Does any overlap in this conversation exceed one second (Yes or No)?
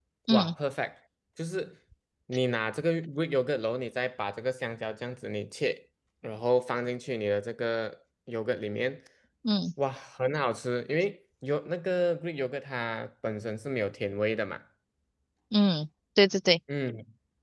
No